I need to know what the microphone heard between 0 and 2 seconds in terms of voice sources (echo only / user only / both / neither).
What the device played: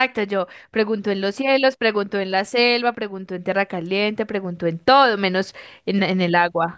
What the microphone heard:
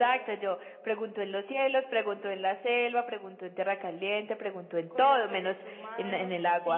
echo only